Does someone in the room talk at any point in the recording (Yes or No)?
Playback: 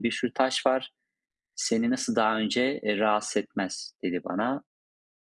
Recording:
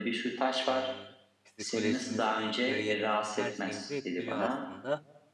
Yes